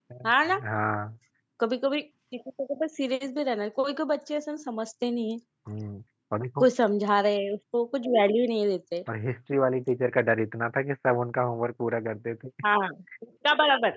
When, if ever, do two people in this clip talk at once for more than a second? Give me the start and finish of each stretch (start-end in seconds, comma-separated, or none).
none